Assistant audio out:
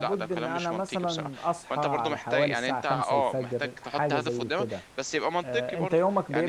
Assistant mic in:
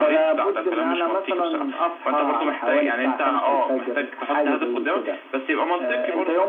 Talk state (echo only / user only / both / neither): echo only